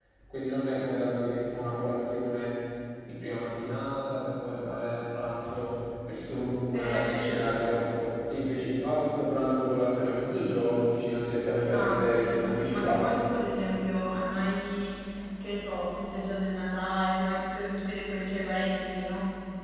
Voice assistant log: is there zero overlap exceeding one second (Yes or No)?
No